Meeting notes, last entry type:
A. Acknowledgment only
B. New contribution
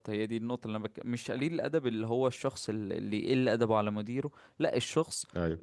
A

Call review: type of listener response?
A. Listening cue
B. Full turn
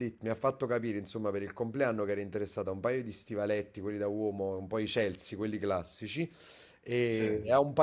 A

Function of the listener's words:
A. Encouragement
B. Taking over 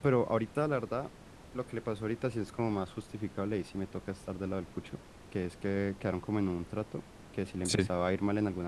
A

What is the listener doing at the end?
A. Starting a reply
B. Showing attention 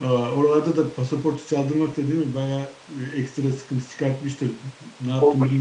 A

